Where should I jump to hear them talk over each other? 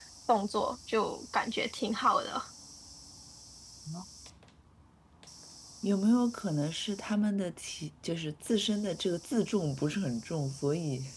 none

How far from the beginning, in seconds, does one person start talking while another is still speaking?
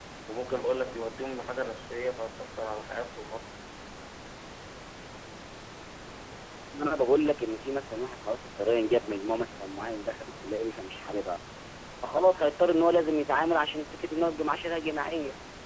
none

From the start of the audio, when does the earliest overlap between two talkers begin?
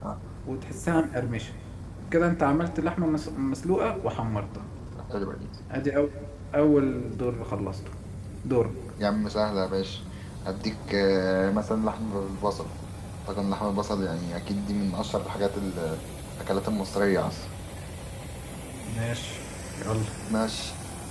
none

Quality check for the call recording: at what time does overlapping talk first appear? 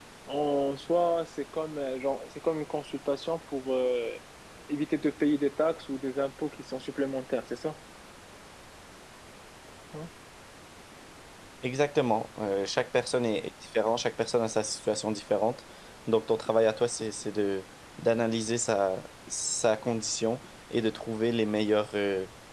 none

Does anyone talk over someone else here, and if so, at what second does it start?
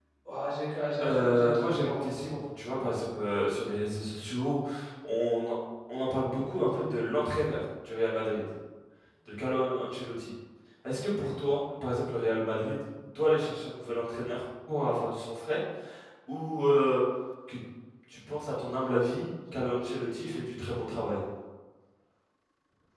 1 s

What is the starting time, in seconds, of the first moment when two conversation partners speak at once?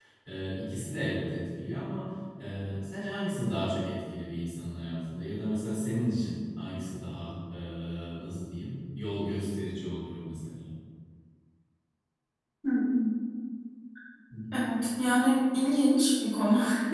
none

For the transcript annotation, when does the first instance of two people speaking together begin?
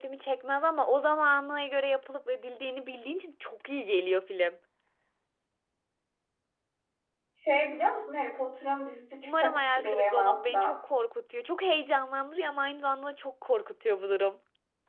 9 s

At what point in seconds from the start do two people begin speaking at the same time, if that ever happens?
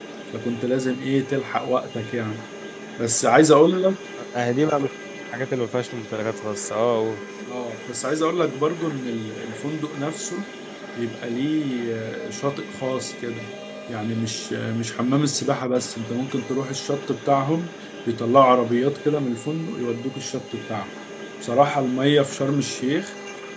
none

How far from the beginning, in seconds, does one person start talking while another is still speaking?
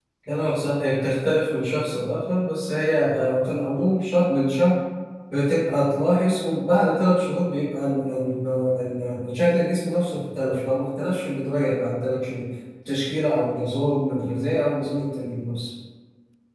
none

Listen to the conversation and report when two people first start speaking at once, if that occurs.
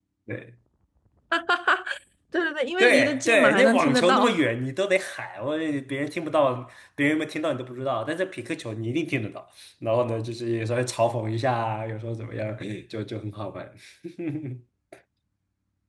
3 s

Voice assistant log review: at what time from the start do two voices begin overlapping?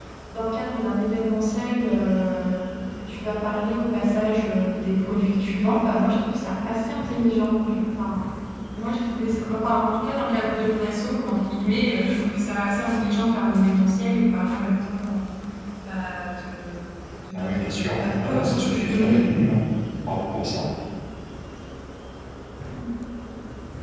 17 s

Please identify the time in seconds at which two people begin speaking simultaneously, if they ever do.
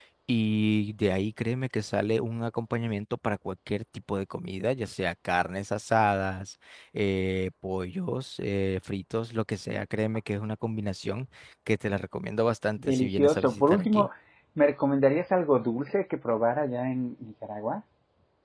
13 s

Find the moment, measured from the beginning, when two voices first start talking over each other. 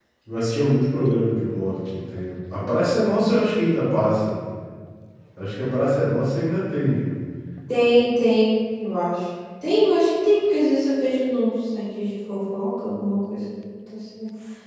none

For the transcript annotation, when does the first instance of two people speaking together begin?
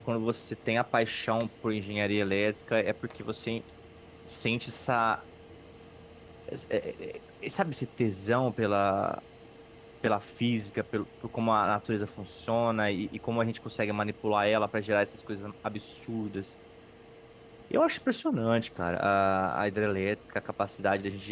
none

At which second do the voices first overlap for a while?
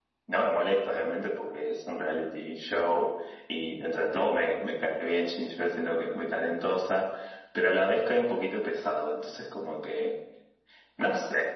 none

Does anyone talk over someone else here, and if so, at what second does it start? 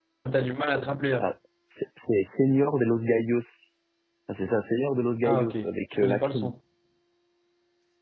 5 s

